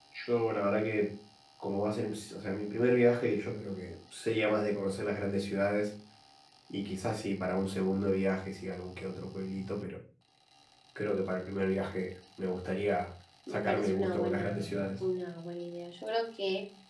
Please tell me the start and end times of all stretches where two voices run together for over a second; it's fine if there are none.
13.5-15.1

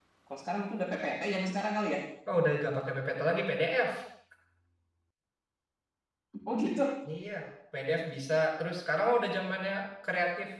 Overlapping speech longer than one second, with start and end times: none

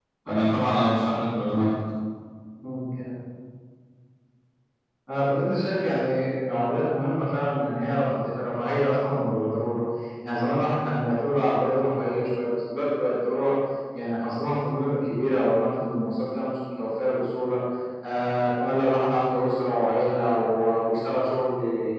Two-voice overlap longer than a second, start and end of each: none

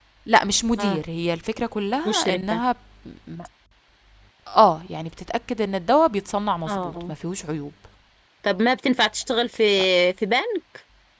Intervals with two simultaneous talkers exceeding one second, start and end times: none

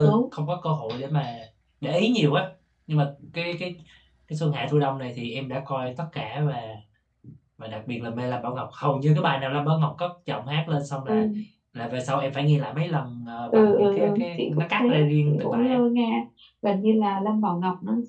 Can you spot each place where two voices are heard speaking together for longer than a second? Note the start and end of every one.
13.5-14.8

